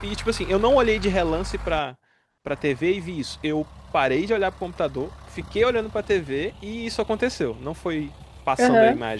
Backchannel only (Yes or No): No